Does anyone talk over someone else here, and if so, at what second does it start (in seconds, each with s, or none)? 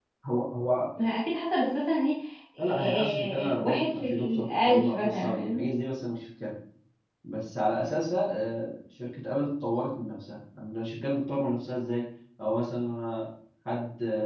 2.9 s